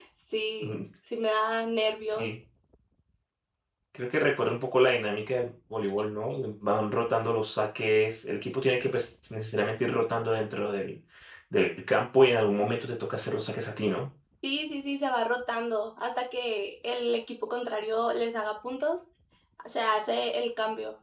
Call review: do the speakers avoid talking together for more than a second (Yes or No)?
Yes